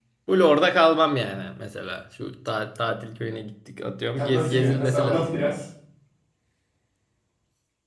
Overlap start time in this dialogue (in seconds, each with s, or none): 4.2 s